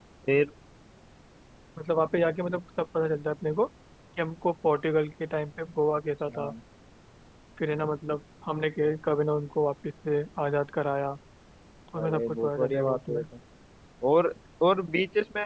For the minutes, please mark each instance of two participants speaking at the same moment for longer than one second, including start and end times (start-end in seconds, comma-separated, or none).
12.0-13.2